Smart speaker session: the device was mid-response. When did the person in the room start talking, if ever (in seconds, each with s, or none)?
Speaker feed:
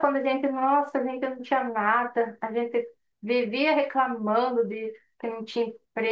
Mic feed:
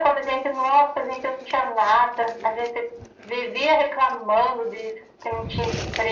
none